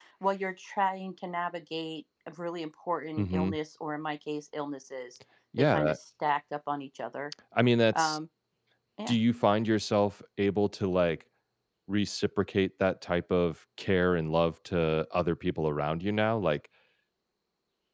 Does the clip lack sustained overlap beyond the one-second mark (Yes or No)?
Yes